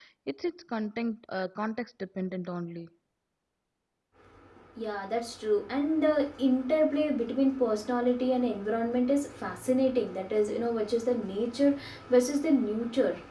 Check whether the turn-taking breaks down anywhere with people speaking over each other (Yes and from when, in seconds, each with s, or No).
No